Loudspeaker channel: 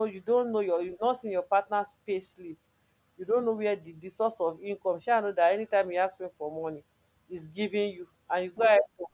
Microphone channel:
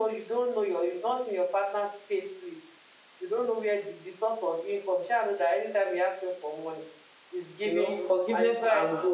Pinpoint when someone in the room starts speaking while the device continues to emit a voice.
7.6 s

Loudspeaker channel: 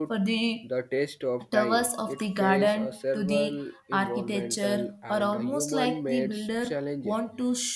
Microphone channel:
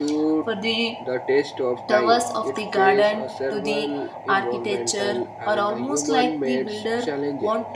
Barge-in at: none

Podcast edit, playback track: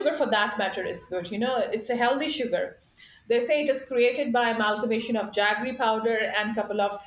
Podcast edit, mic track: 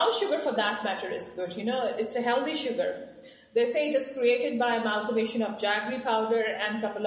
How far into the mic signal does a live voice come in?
none

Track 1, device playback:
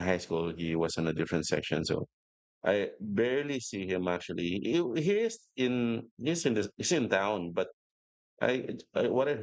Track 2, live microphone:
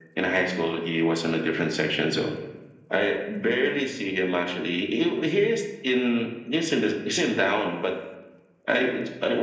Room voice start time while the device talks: none

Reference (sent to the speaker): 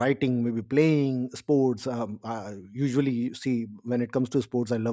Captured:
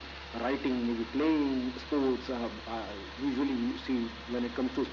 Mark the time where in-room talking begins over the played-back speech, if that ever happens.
none

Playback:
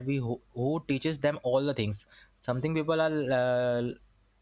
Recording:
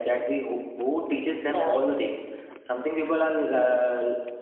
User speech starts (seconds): 1.5 s

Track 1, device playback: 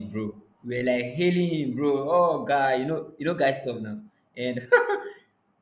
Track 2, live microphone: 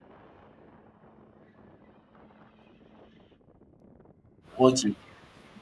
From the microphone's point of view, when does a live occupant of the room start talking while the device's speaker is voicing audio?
4.6 s

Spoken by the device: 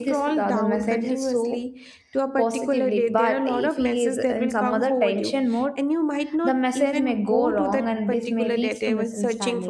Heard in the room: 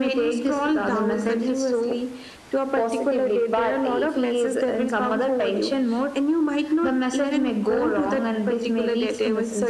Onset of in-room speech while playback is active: none

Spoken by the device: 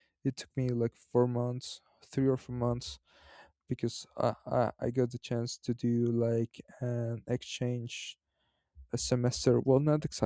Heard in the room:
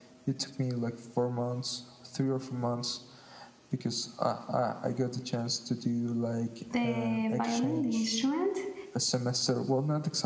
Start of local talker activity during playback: 6.7 s

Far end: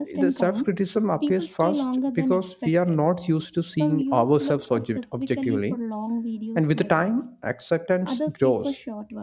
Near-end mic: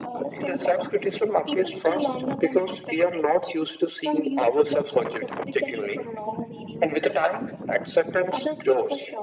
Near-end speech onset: none

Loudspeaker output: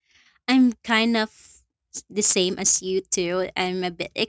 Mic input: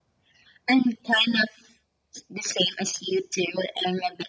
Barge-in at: none

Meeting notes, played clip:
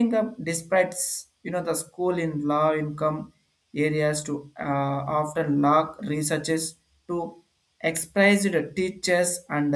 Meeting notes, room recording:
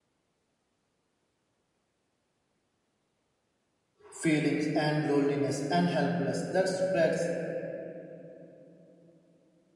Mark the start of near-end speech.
4.1 s

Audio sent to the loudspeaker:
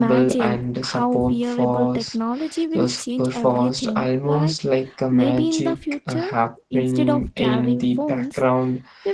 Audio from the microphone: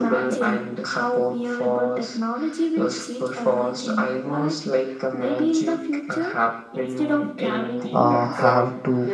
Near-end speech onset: 7.9 s

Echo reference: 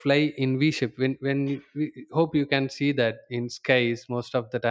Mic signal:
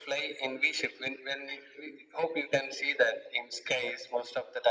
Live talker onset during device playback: none

